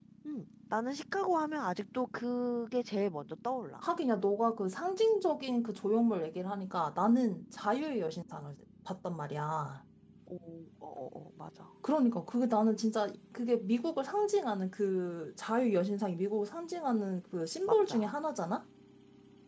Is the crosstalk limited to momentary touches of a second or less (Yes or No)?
Yes